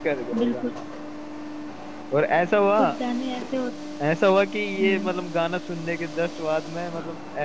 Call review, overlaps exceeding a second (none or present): none